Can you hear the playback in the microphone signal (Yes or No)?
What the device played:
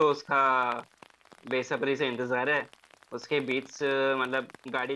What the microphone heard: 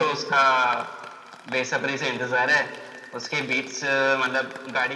Yes